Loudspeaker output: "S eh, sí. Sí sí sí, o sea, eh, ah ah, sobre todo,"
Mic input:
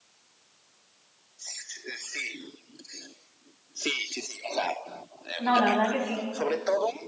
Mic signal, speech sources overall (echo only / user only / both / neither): both